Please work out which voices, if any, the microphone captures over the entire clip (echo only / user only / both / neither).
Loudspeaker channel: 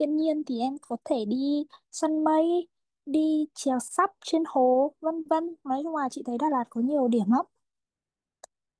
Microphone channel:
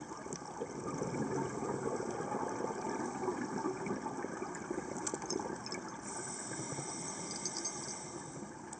neither